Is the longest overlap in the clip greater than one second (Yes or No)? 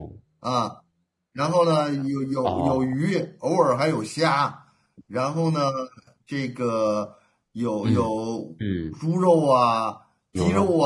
No